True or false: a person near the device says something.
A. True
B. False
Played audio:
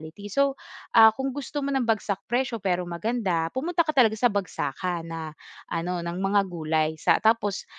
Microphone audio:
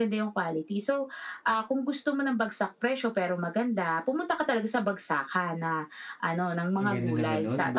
A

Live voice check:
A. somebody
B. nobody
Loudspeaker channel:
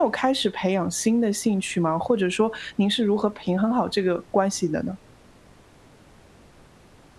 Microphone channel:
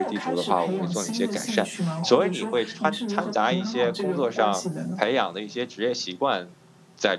A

